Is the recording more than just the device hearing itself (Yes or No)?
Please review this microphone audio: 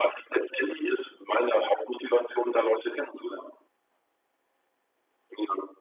No